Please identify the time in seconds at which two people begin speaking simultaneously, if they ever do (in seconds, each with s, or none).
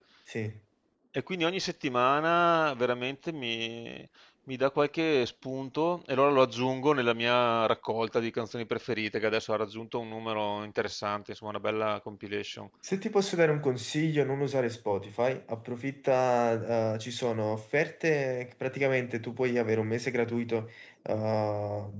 none